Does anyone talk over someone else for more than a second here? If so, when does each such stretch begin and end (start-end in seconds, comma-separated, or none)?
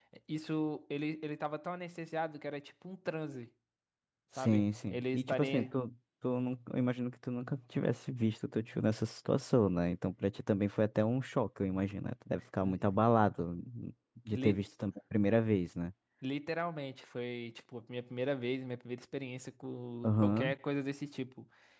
4.4-5.7